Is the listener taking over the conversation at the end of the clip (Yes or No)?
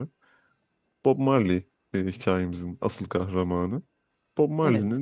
No